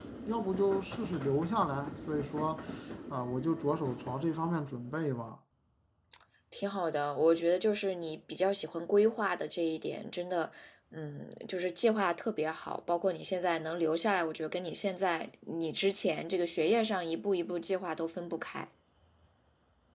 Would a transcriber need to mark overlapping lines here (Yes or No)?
No